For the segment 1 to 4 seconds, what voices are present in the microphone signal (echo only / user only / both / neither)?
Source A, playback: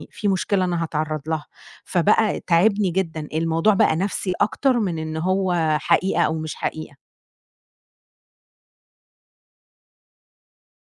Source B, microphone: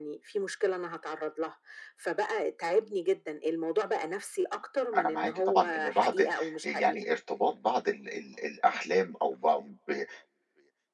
echo only